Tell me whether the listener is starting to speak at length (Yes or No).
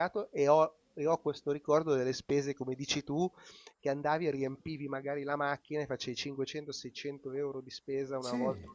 No